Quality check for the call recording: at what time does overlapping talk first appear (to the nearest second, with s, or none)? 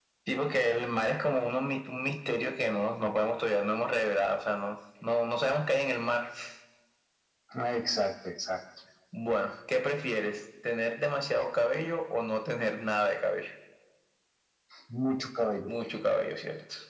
none